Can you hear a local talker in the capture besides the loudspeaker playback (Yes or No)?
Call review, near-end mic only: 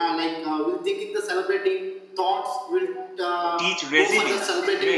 Yes